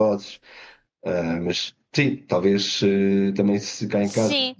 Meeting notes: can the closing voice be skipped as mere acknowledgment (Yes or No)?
Yes